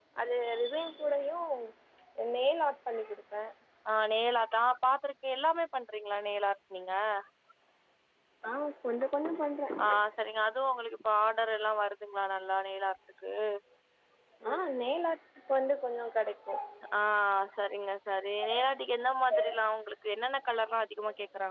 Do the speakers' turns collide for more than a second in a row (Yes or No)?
No